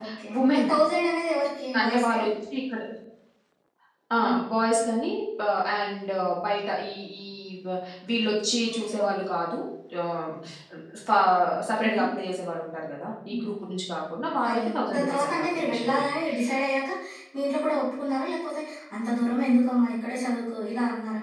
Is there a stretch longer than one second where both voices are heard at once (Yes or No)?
Yes